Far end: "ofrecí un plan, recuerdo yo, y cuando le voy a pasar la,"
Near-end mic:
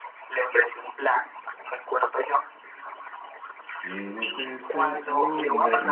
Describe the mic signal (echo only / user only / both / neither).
both